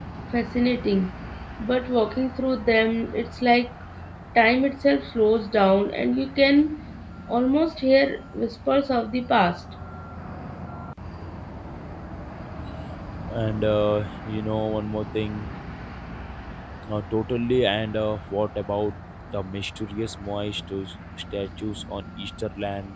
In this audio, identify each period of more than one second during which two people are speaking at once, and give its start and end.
none

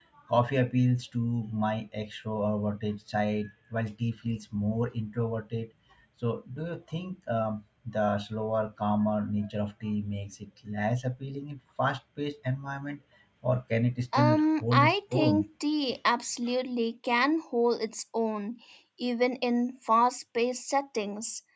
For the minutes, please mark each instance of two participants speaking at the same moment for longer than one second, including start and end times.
14.2-15.4

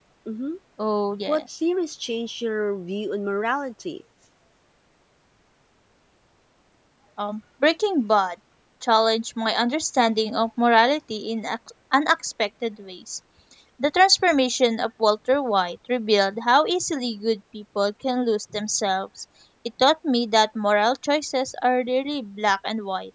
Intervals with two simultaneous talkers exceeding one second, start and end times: none

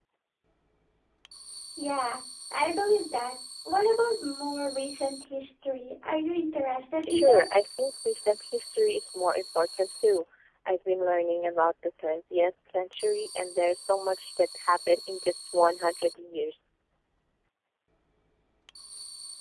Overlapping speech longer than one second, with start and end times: none

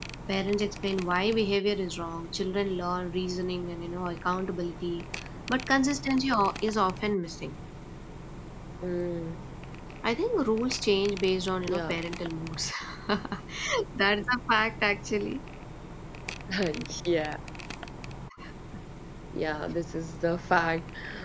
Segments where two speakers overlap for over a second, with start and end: none

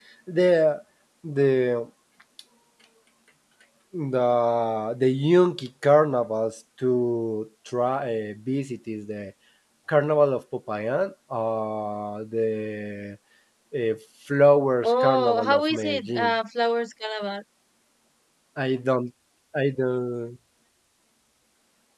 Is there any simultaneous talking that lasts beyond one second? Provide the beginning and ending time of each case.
14.8-16.3

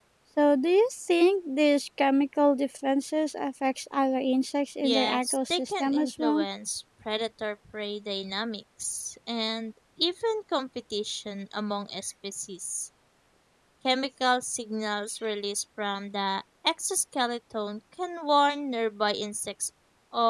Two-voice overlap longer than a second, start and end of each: 4.8-6.5

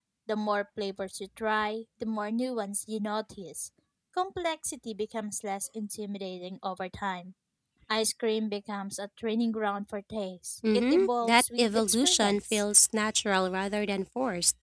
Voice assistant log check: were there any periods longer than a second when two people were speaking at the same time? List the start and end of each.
10.7-12.6

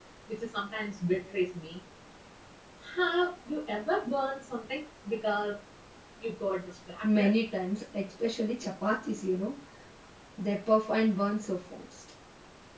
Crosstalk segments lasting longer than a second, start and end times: none

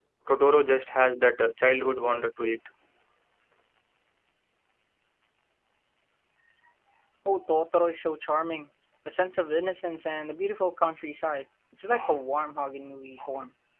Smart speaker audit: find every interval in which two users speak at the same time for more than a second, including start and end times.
none

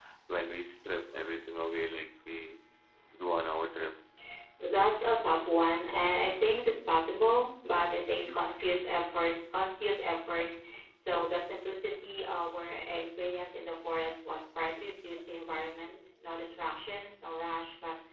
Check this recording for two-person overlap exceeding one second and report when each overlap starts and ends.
none

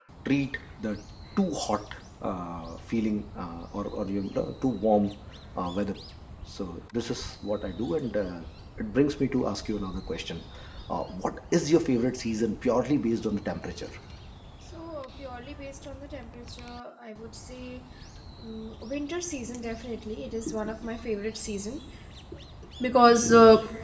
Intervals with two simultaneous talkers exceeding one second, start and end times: none

